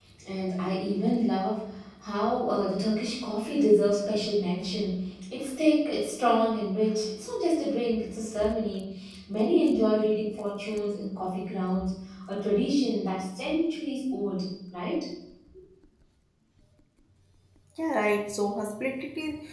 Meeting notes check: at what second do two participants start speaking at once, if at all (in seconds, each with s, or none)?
none